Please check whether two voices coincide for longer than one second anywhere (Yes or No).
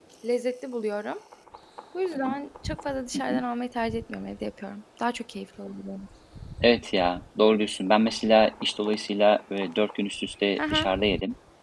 No